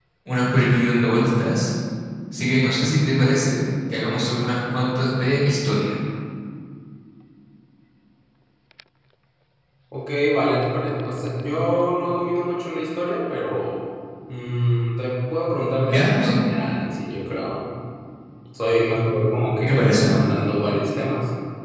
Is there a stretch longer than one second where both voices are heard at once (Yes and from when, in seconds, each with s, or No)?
No